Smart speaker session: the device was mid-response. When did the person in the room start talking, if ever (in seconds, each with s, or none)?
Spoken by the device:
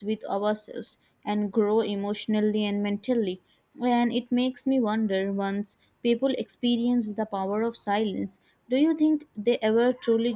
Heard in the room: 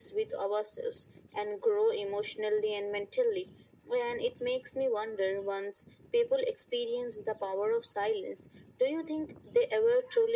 none